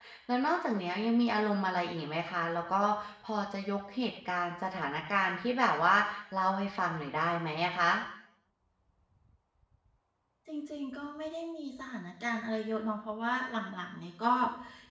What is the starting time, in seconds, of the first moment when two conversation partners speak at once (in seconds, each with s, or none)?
none